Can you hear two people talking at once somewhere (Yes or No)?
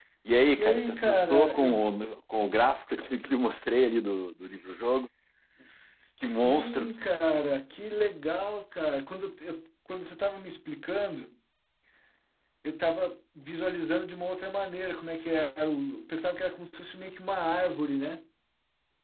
Yes